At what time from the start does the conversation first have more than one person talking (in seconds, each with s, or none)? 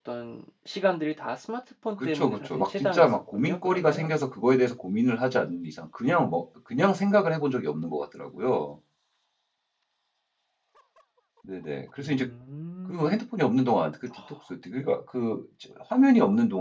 2.0 s